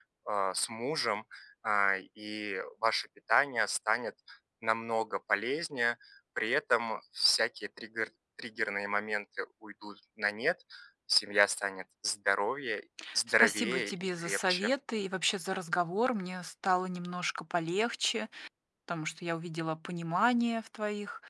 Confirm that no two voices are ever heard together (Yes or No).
No